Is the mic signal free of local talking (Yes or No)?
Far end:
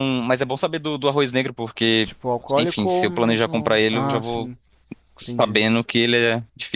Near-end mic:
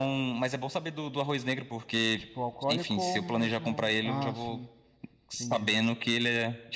Yes